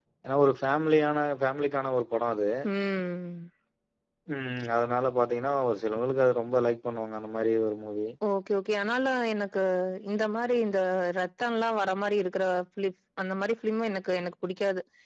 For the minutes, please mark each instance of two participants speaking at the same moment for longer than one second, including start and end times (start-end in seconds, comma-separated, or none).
none